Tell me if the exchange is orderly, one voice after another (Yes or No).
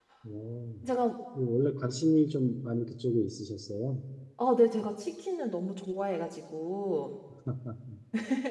Yes